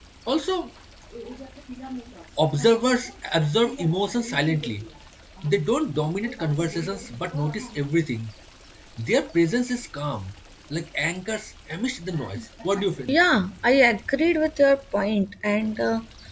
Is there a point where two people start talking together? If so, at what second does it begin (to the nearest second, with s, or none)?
none